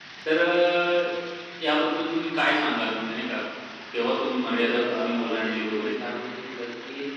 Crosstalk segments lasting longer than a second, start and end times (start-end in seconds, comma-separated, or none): 4.6-6.1